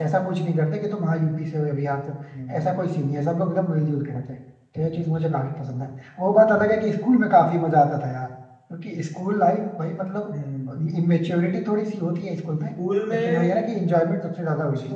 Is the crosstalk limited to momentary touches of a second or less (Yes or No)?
Yes